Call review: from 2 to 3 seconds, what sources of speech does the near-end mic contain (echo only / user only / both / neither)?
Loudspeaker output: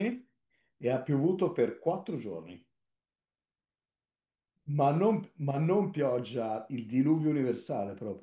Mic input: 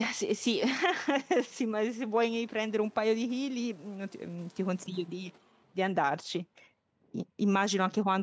user only